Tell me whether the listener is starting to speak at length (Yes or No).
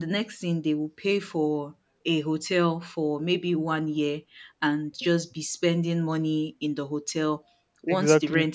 No